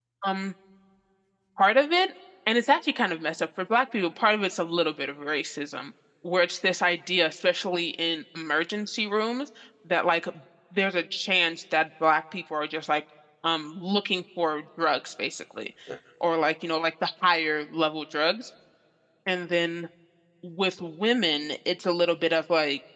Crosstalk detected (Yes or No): No